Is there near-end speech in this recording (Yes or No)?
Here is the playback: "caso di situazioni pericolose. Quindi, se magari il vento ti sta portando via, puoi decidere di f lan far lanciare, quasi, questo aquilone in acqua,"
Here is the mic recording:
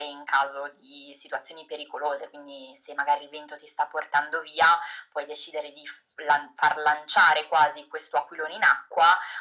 No